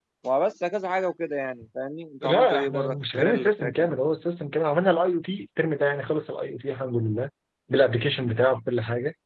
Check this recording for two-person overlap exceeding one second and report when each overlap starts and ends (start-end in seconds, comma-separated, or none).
2.2-3.9